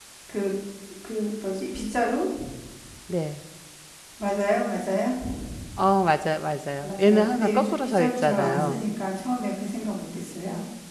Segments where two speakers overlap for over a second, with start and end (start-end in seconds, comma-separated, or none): 6.8-8.8